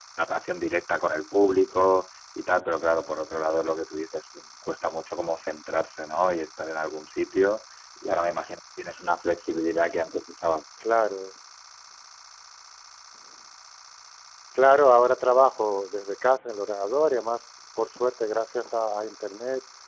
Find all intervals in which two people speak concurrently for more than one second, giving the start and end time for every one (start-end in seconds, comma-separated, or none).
none